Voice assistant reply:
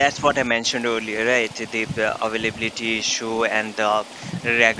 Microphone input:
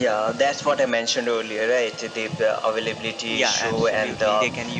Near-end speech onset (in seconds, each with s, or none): 3.3 s